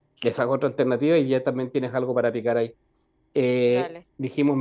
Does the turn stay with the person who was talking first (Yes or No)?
Yes